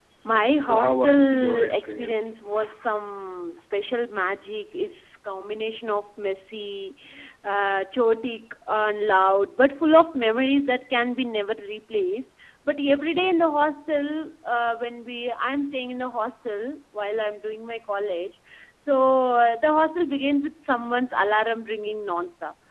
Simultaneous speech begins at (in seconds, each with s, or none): 0.6 s